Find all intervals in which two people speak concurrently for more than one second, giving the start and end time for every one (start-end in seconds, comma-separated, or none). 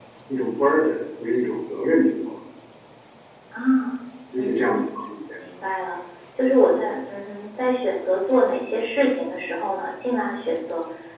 none